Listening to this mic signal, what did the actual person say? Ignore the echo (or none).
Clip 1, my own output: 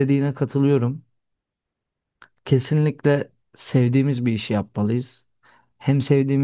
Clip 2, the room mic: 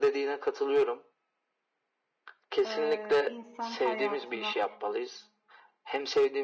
e, insan hayatına